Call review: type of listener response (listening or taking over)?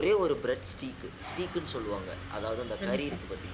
taking over